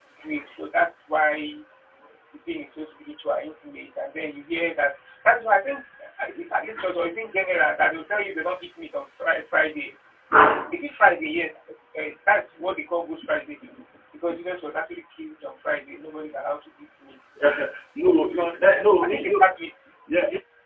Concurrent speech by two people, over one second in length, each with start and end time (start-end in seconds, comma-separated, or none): 18.1-19.5